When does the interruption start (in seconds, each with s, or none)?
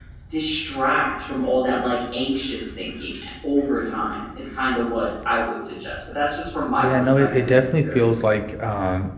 6.8 s